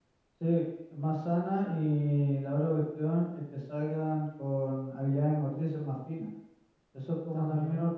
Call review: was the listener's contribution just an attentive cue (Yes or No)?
Yes